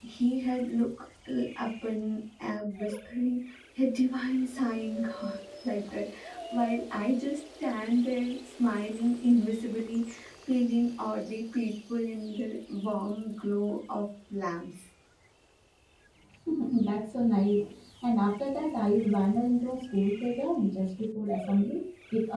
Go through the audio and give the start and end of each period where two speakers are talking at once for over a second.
none

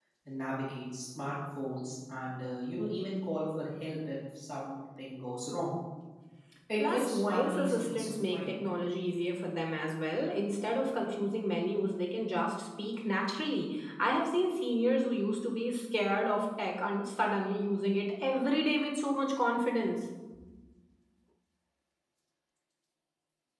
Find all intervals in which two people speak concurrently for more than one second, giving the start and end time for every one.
6.8-8.4

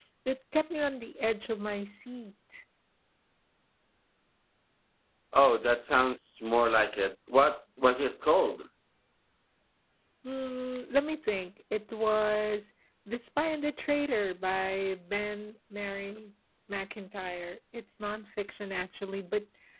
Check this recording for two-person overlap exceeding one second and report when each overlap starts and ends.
none

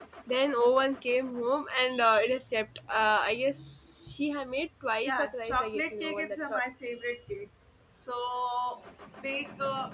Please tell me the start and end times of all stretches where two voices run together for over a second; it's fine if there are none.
5.0-6.6

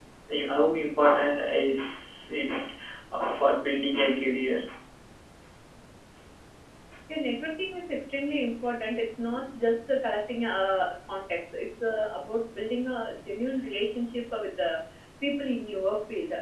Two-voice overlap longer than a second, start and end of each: none

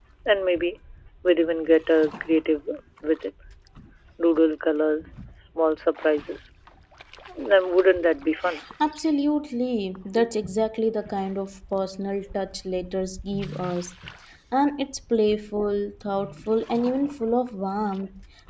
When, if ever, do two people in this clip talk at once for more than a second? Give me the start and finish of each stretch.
none

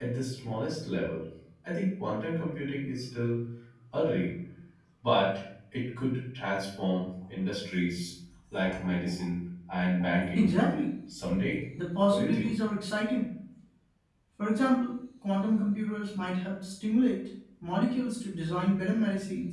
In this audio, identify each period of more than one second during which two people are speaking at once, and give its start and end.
none

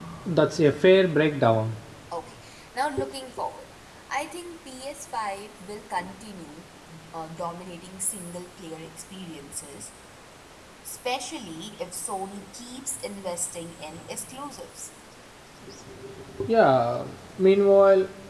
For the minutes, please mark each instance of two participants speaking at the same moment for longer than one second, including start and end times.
none

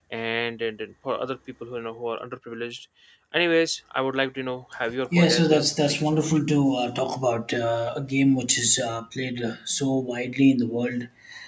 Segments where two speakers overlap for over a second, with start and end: 5.2-6.4

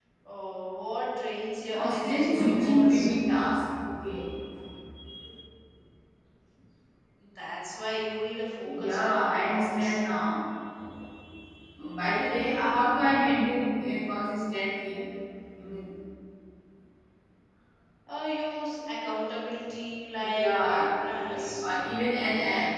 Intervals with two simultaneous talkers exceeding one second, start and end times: 1.7-3.0, 8.7-10.0, 20.3-21.6

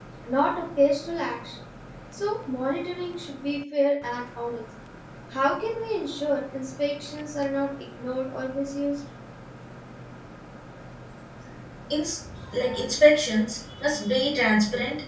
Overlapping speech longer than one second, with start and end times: none

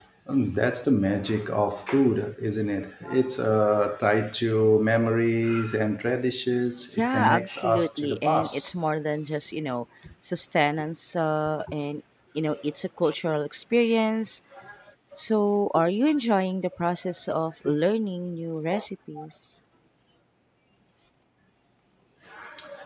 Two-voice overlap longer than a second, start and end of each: 7.0-8.8

